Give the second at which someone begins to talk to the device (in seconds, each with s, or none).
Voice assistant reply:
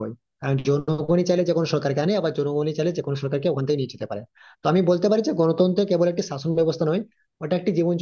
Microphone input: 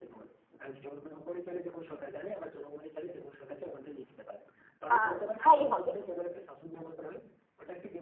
4.9 s